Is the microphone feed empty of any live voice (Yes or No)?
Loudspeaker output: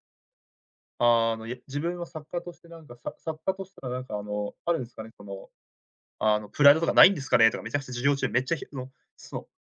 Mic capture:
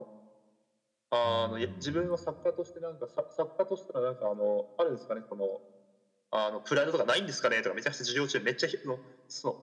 No